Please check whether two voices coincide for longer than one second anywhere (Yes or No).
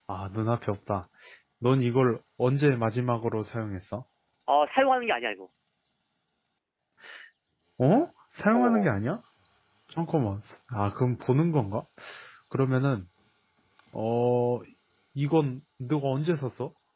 No